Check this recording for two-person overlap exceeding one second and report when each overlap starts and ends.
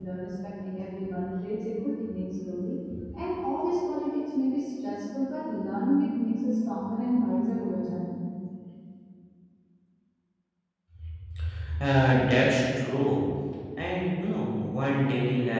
none

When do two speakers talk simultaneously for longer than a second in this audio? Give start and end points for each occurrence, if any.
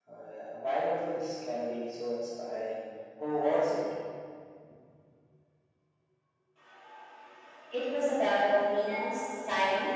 none

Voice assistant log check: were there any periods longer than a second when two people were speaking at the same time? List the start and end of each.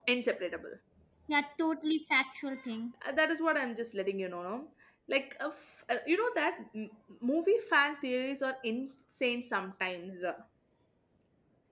none

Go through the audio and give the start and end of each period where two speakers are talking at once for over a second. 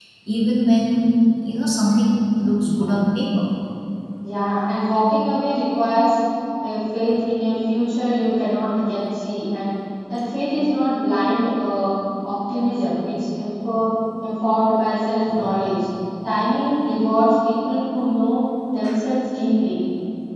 none

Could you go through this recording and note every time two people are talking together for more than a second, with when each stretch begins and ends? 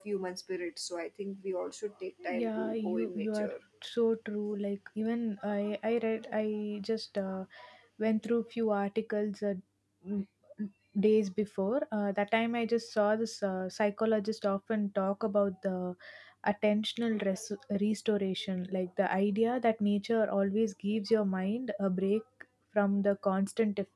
2.2-3.5

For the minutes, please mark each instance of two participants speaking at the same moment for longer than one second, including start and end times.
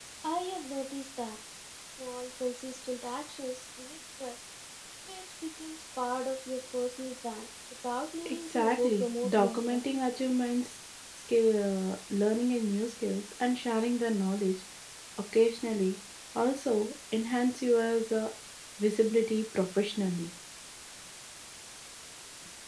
8.2-9.8

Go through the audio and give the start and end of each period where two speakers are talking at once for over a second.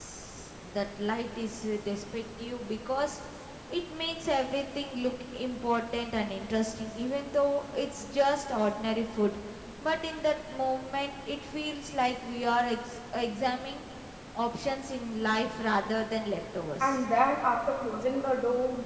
none

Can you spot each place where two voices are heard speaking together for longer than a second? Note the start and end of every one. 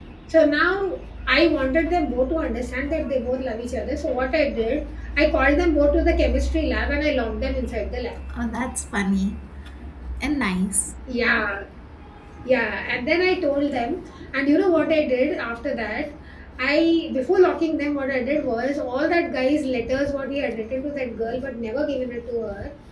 none

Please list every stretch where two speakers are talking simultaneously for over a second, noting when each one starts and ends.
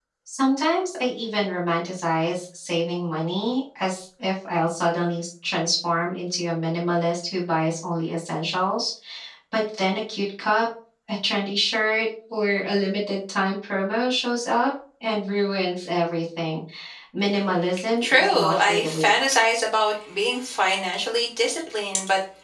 18.0-19.4

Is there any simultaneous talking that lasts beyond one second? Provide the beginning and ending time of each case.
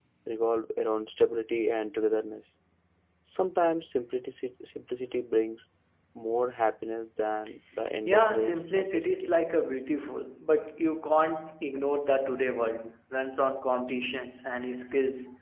8.1-9.4

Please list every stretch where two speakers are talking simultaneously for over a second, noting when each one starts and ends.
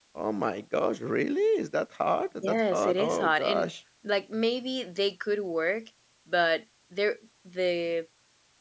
2.4-3.6

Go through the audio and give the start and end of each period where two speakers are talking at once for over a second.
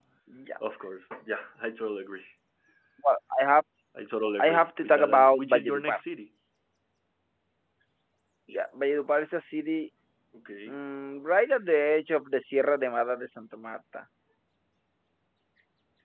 4.4-6.0

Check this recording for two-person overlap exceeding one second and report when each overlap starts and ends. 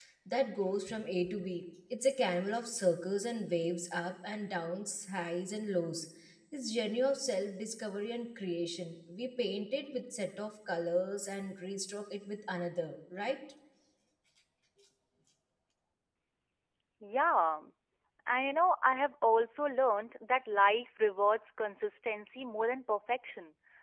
none

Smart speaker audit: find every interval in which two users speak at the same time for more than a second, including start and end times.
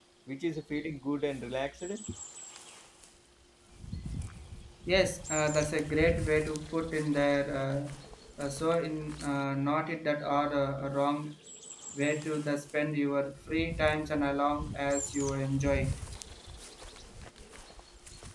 none

